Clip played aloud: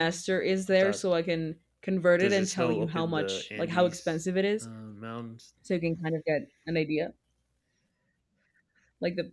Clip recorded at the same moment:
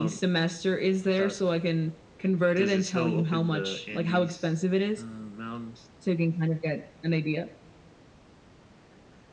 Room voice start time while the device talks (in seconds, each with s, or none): none